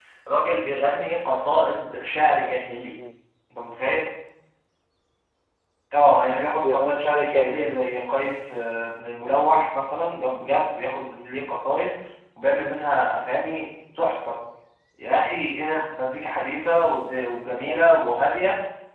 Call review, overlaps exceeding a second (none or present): present